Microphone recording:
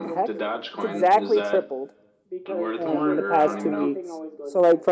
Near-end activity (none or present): present